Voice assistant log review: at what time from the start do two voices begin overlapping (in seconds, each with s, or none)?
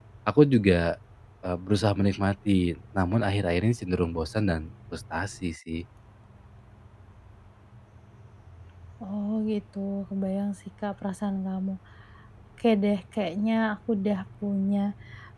none